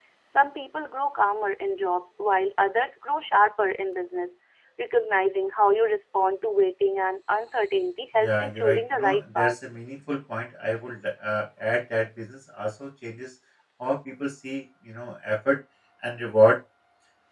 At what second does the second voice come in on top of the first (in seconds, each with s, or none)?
8.2 s